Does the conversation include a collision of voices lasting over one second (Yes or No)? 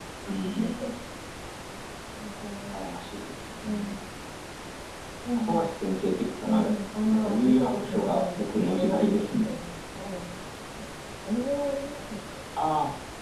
Yes